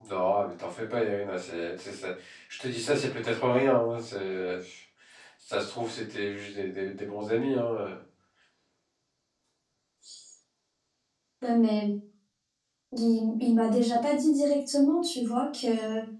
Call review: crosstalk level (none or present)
none